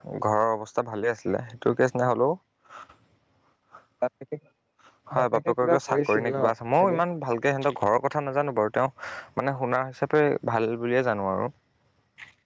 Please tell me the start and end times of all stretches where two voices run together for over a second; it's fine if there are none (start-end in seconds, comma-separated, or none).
5.2-6.4